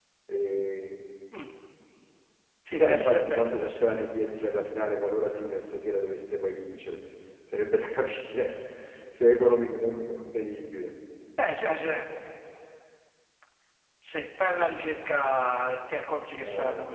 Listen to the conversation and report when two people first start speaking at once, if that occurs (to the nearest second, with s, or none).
3 s